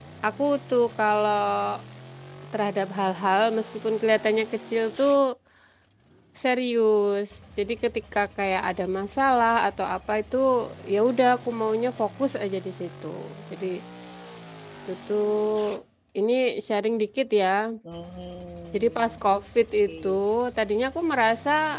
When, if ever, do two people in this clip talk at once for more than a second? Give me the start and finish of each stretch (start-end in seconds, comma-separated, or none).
none